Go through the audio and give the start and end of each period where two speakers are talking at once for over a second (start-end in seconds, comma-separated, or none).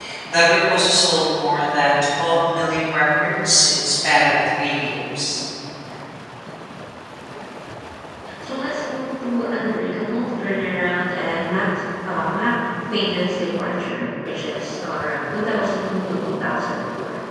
none